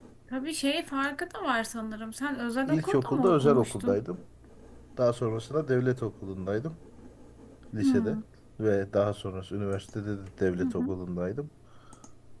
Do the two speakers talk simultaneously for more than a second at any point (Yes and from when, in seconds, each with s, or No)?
Yes, from 2.7 s